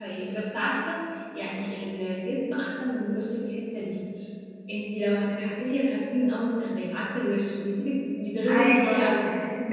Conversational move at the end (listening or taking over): taking over